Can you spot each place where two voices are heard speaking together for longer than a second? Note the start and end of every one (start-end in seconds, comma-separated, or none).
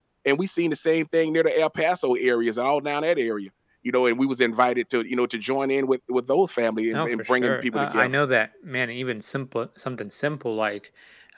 6.9-8.2